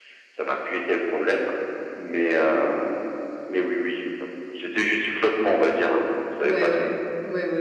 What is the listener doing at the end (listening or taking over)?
taking over